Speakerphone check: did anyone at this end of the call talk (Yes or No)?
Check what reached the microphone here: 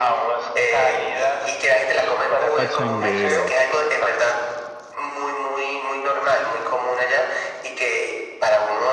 Yes